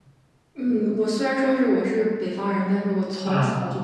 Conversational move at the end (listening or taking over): listening